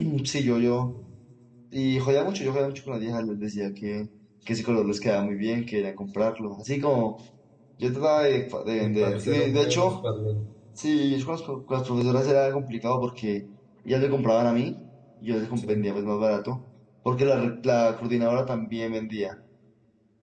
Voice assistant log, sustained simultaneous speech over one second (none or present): present